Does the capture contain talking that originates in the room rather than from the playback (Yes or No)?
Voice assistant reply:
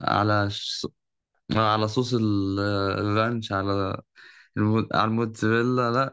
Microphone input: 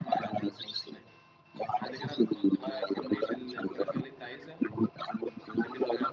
Yes